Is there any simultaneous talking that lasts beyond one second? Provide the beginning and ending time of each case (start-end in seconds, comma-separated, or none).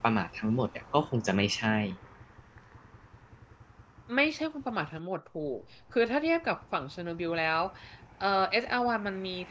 none